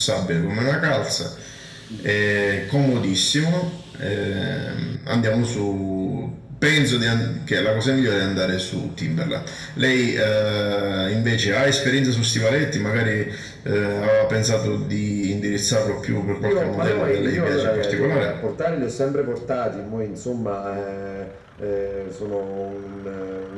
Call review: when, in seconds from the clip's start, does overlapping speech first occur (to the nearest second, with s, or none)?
16 s